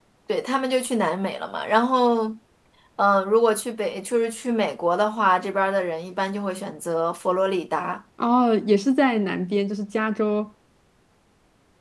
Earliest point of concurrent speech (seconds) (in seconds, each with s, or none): none